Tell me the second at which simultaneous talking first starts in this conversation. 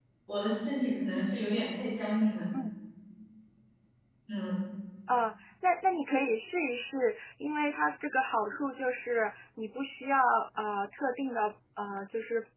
none

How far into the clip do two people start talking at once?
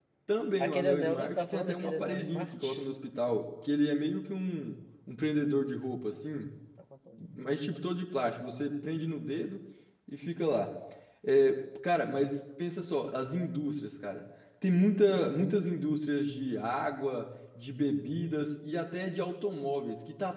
0.6 s

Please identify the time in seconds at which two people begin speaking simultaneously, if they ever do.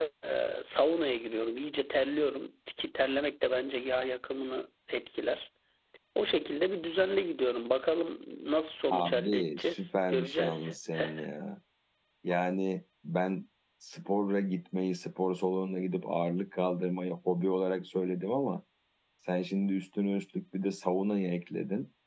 8.9 s

